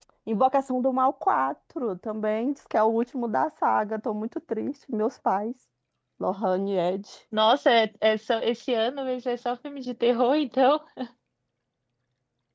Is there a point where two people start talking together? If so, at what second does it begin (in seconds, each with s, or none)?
none